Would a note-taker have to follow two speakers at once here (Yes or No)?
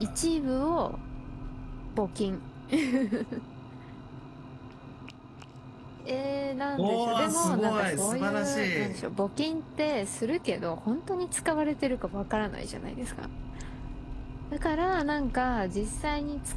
Yes